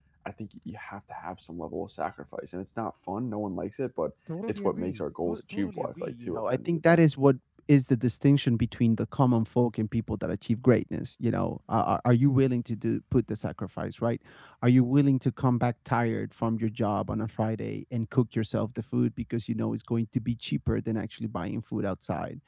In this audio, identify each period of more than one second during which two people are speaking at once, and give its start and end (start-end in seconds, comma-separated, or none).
4.5-7.0